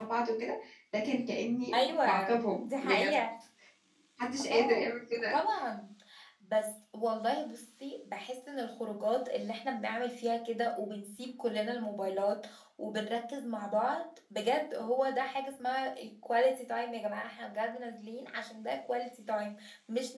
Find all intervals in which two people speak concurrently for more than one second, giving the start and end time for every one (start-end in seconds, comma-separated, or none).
1.7-3.2